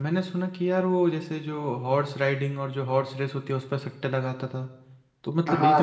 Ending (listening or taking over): listening